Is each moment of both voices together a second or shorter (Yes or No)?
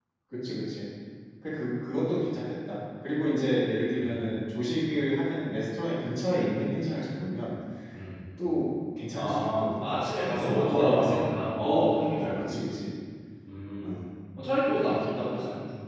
No